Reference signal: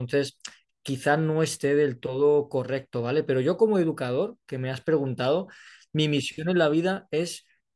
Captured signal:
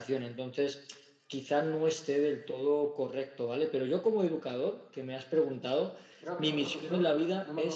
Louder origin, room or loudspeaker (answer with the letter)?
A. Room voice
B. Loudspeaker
B